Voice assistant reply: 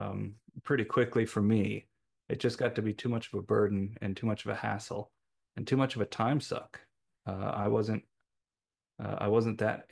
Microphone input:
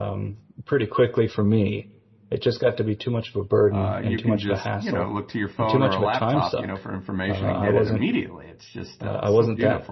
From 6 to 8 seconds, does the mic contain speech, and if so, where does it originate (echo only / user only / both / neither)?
both